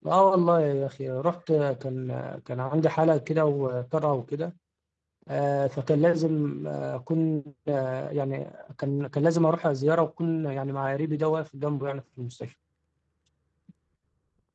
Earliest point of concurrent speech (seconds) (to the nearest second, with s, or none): none